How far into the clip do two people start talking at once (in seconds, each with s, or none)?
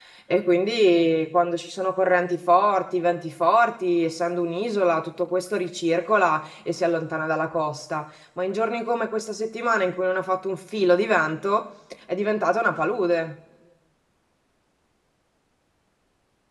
none